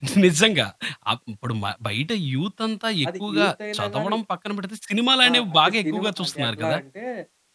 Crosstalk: present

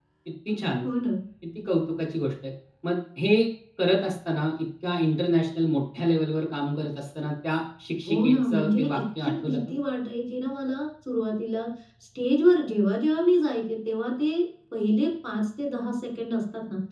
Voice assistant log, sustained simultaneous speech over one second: present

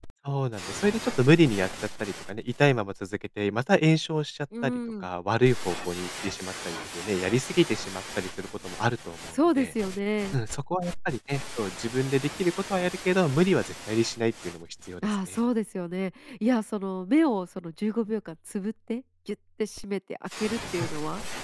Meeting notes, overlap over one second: none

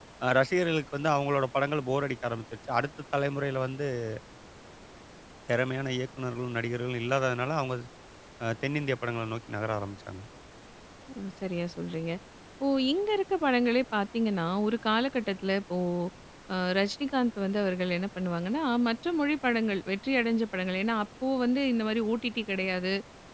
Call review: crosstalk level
none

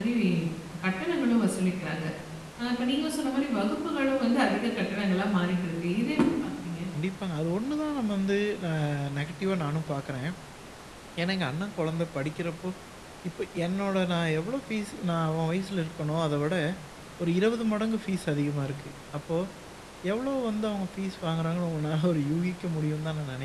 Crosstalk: none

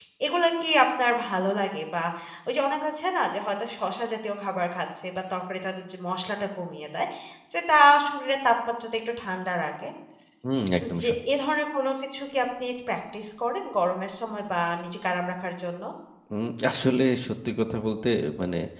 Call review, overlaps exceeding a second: none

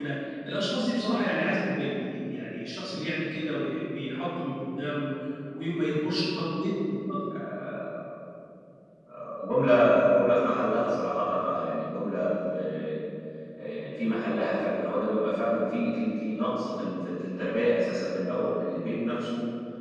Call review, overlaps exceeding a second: none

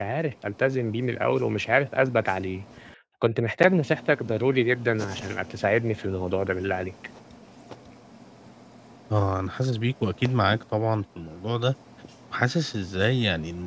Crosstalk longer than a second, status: none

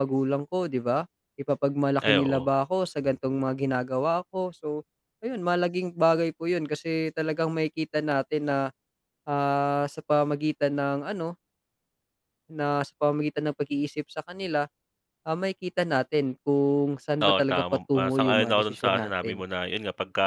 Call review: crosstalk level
present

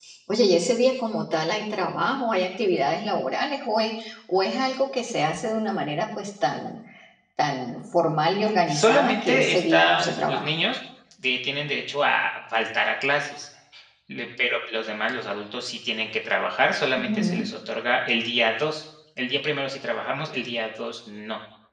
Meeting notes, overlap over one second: present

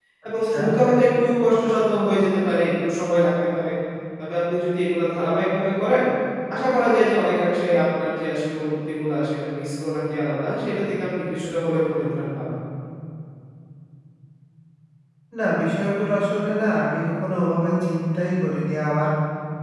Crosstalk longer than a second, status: none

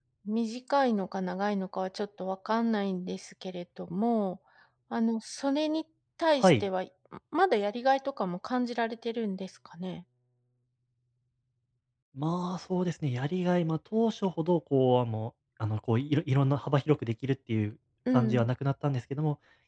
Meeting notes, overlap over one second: none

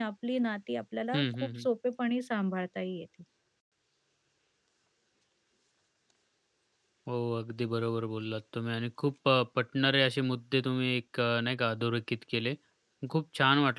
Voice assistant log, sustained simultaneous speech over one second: none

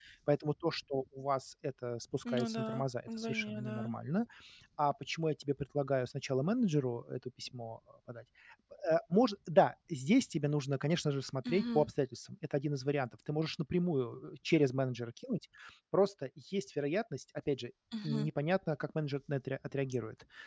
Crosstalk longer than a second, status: present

